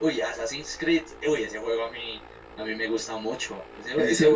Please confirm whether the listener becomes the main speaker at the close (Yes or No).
No